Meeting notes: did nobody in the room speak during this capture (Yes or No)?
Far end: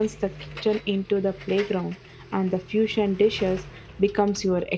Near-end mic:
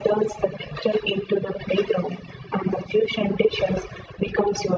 Yes